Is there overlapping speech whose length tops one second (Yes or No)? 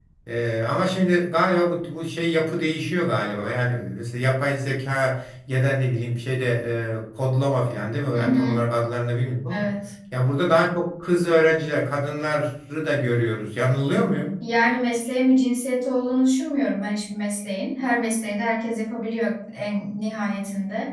No